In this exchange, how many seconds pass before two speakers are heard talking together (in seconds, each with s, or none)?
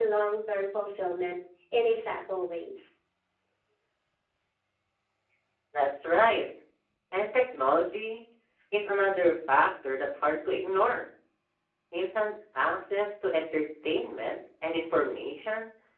none